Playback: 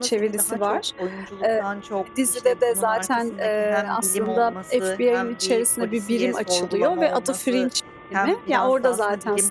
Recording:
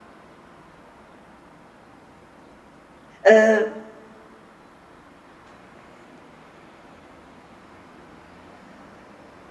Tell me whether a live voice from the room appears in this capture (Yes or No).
Yes